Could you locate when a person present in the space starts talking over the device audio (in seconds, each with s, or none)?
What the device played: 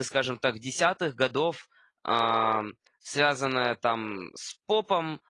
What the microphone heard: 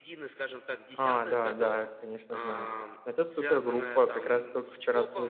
0.9 s